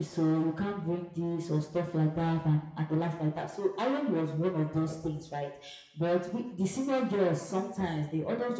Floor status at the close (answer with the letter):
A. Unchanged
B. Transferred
A